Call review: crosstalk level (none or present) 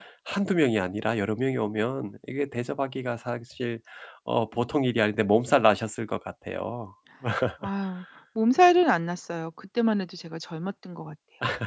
none